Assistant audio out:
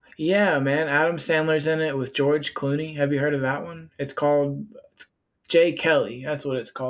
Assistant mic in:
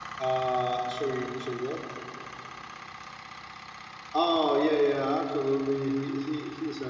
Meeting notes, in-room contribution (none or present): present